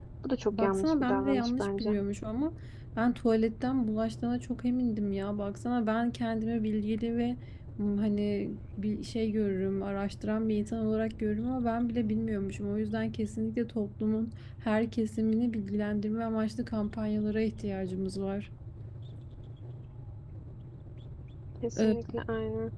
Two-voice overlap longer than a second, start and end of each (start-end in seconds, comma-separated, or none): 0.5-1.9